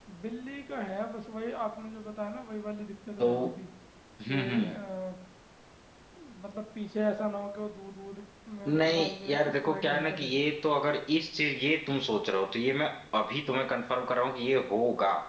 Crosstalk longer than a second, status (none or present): present